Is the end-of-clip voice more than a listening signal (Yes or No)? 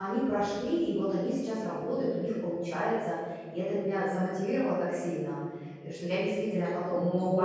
Yes